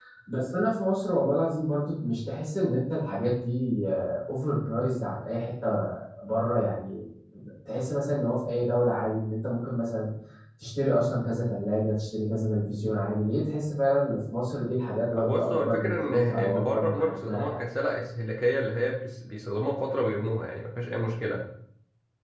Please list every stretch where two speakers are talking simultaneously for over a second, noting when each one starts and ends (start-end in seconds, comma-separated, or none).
15.2-17.6